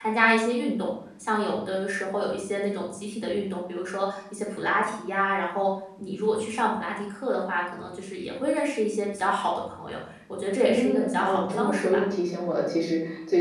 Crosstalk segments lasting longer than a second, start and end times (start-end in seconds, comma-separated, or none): 10.6-12.0